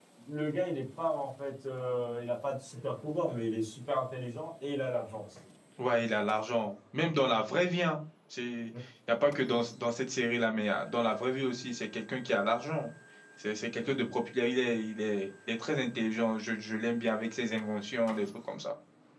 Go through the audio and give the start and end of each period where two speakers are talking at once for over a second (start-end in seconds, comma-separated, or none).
none